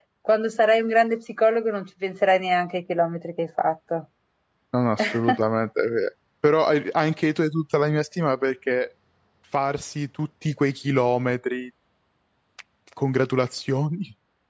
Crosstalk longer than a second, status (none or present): none